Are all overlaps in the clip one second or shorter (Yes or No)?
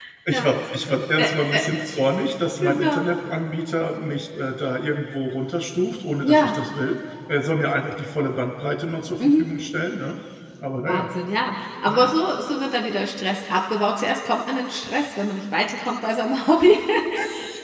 Yes